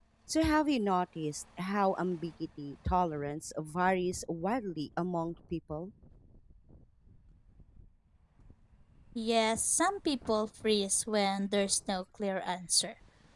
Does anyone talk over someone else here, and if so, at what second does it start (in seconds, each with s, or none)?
none